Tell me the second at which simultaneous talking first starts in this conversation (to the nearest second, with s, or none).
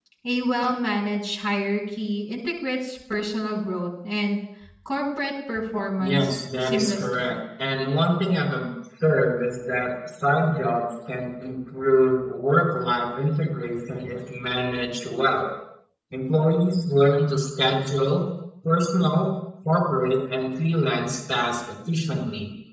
6 s